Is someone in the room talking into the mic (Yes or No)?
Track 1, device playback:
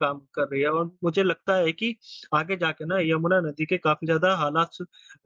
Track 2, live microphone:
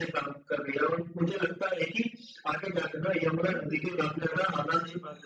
Yes